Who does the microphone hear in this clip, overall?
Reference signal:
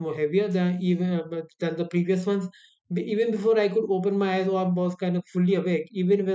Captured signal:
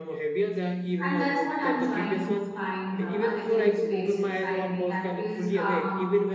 both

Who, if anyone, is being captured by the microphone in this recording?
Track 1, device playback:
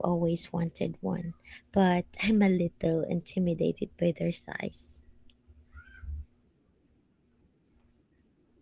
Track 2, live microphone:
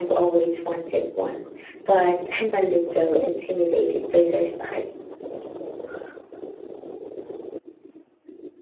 echo only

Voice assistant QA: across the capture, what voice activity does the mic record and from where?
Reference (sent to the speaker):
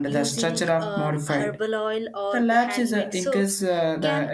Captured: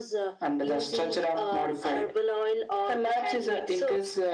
echo only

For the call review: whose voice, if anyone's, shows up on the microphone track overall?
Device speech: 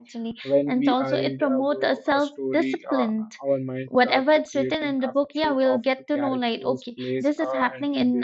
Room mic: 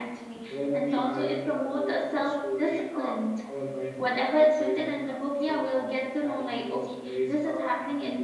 echo only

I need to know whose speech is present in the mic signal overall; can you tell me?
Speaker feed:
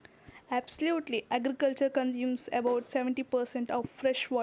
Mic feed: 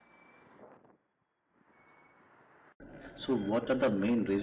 user only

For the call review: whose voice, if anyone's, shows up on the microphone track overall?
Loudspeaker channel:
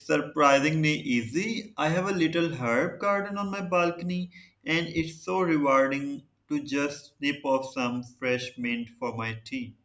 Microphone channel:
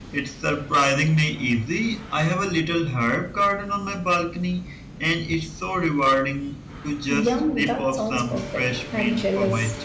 both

